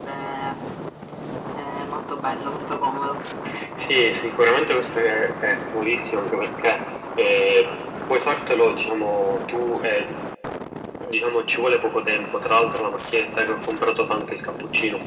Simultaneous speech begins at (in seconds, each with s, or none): none